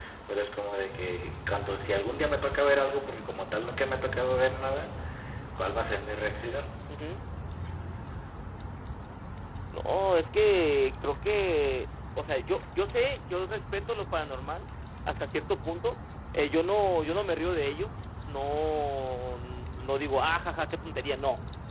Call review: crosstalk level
none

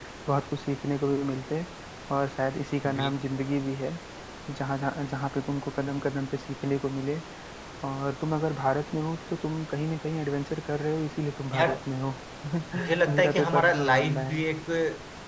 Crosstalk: present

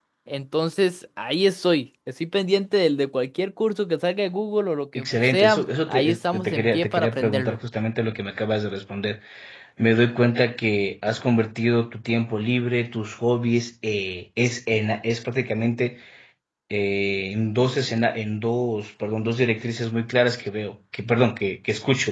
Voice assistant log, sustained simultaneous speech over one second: present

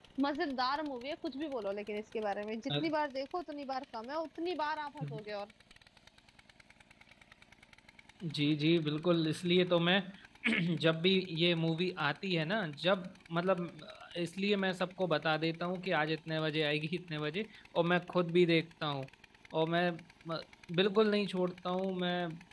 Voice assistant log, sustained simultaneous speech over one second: none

